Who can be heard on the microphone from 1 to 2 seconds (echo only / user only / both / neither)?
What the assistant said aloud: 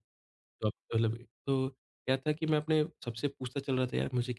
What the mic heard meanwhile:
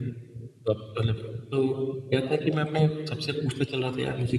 echo only